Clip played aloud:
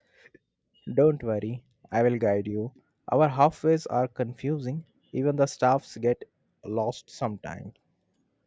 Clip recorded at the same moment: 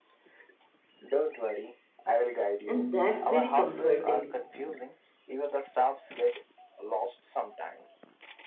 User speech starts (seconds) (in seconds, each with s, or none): 2.6 s